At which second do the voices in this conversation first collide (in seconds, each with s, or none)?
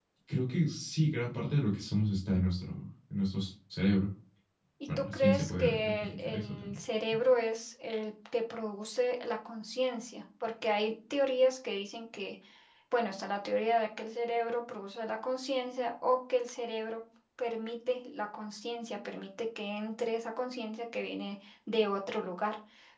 5.0 s